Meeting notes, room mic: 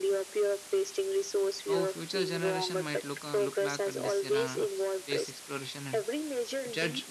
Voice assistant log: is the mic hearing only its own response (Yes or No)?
No